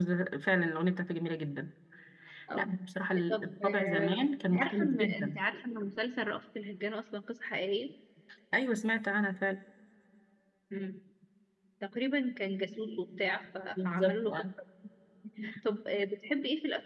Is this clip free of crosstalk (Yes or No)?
No